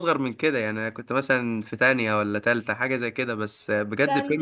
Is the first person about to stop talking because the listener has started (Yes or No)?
Yes